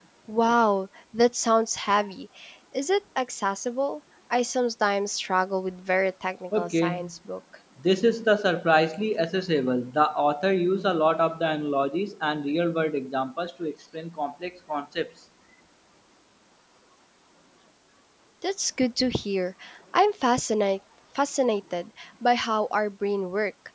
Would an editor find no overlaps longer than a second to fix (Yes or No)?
Yes